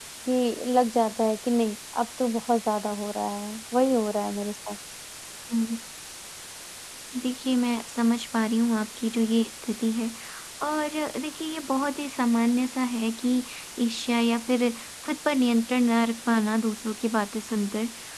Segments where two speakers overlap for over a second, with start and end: none

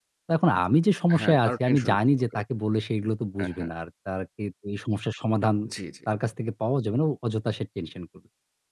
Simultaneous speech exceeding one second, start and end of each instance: 1.1-2.4

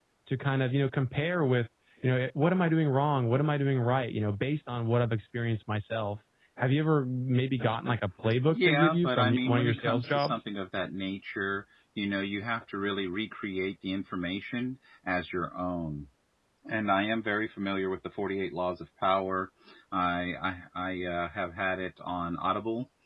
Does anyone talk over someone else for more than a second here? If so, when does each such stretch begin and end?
8.5-10.4

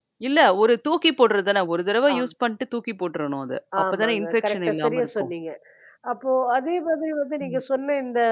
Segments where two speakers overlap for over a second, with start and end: 3.9-5.3

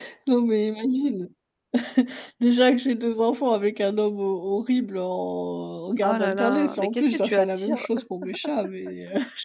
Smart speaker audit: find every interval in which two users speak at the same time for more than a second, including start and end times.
6.0-7.8

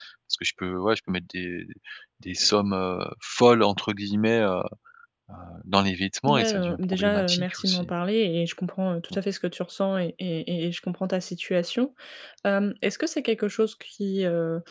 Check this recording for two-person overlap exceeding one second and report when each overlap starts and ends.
6.3-7.9

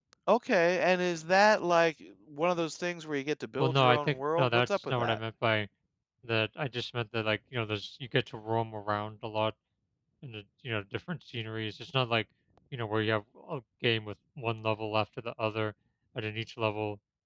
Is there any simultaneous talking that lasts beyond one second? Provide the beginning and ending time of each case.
3.6-5.2

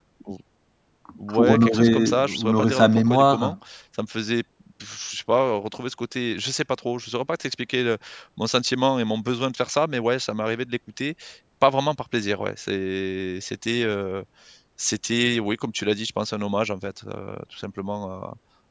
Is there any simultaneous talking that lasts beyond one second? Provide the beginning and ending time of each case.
1.3-3.5

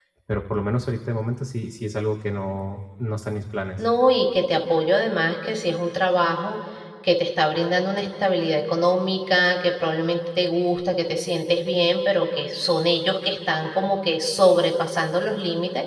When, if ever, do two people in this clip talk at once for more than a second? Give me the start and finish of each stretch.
none

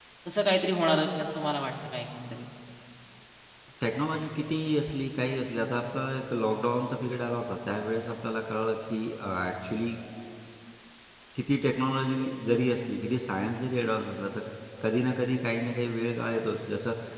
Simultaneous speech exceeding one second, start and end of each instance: none

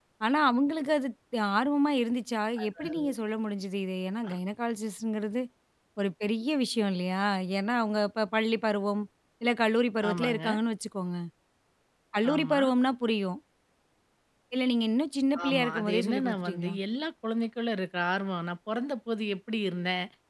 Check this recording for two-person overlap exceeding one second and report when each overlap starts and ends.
15.4-16.8

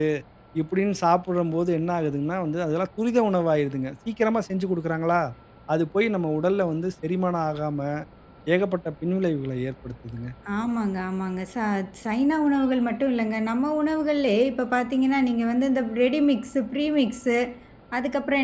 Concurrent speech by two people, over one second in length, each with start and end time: none

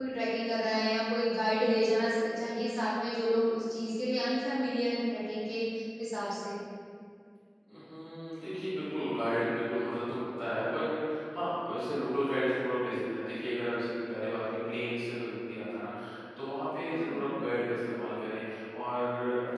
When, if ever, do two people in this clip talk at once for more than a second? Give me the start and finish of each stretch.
none

